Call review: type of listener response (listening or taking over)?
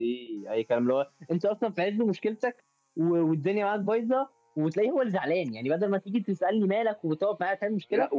taking over